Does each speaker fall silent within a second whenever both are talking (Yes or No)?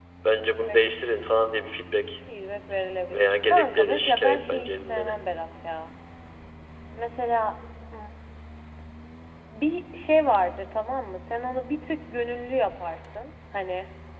No